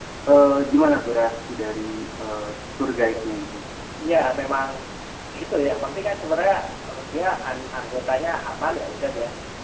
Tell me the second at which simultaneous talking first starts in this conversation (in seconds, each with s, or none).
none